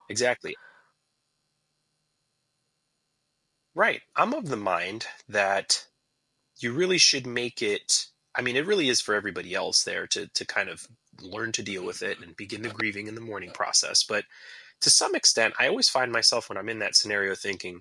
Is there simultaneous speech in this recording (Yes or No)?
No